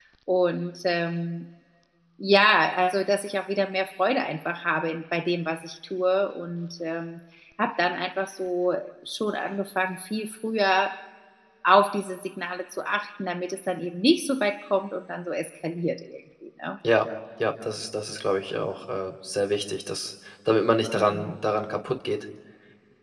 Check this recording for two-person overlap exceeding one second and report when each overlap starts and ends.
none

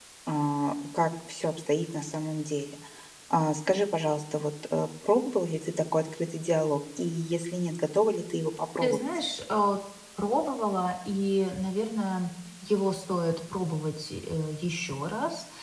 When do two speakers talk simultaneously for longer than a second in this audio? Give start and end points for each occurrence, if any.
none

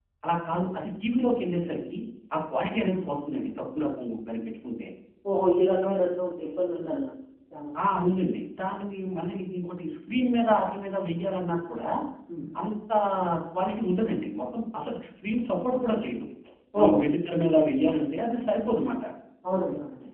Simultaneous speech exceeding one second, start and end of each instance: none

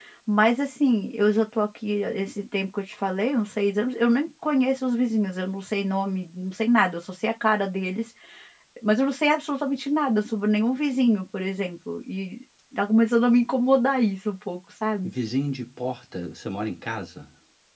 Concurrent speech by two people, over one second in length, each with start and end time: none

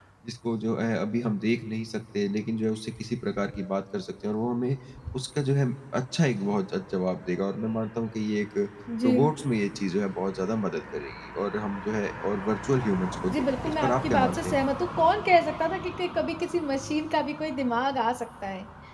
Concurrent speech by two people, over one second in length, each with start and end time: 13.3-14.6

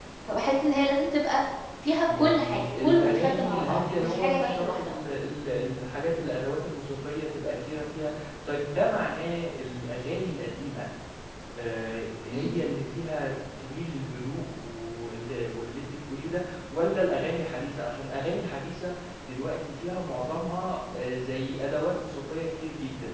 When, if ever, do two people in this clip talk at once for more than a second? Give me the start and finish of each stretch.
2.0-4.9

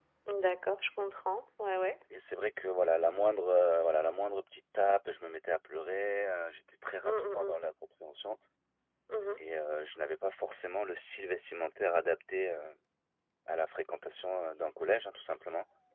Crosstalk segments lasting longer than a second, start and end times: none

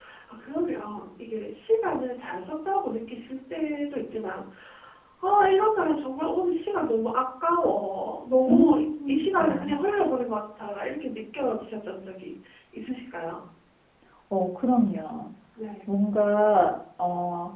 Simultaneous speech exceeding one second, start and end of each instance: 8.5-9.8

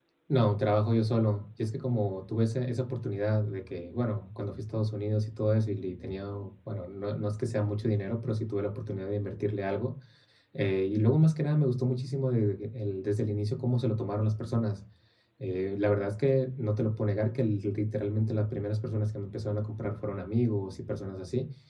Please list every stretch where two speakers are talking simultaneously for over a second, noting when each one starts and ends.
none

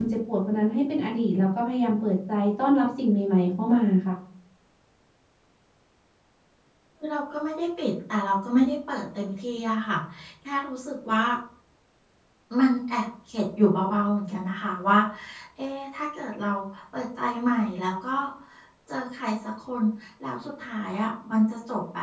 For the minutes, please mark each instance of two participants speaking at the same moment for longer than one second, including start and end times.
none

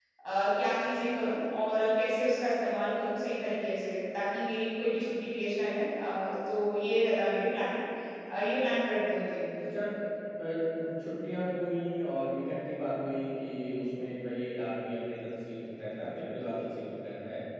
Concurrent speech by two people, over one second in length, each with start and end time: none

